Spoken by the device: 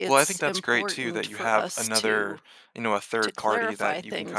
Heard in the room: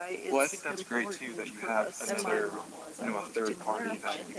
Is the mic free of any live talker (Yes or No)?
No